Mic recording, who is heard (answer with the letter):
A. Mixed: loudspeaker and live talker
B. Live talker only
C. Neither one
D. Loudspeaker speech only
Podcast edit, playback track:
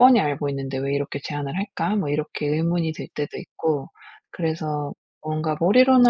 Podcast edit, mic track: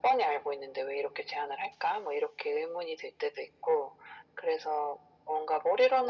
D